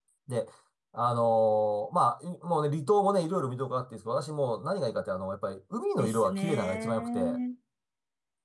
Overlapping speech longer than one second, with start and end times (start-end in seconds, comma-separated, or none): 6.0-7.4